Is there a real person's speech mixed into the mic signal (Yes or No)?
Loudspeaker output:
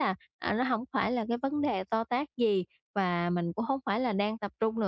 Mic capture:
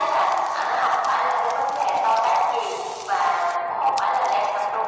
No